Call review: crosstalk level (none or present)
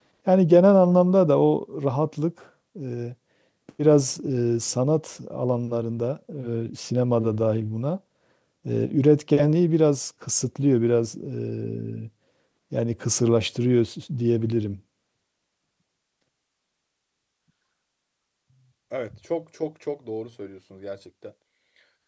none